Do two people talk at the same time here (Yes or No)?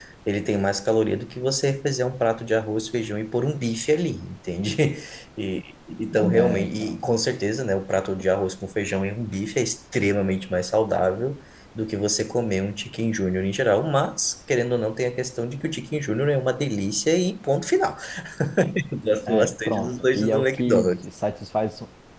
Yes